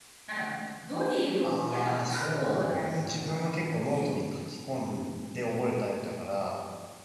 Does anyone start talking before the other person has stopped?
Yes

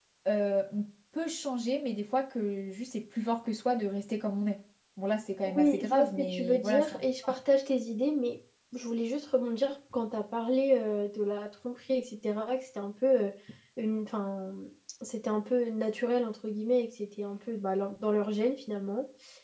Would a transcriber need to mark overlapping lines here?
Yes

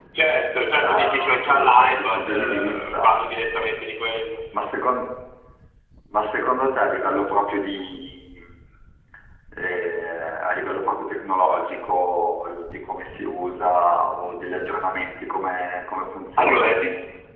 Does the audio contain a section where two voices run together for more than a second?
Yes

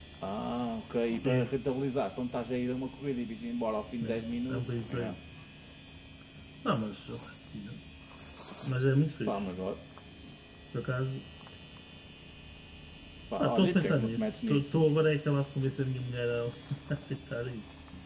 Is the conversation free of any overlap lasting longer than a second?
No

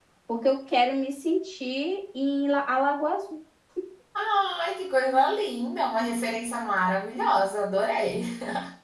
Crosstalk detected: No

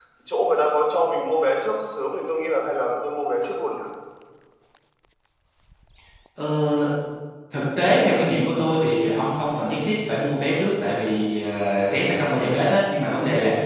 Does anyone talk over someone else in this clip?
No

